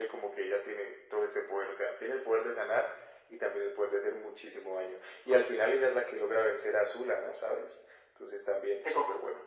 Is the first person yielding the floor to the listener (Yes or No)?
Yes